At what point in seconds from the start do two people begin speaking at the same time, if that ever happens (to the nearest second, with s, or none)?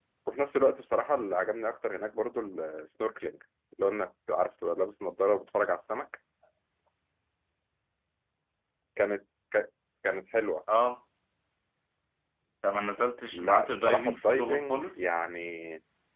13 s